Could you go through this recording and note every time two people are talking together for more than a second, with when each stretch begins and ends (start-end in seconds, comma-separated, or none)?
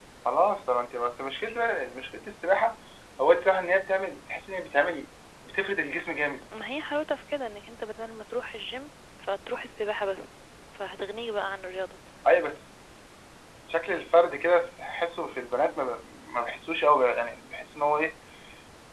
none